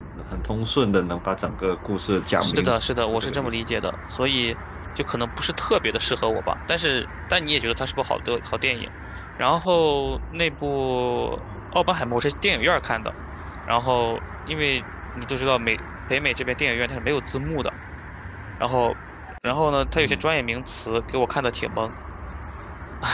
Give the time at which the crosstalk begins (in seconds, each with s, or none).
2.4 s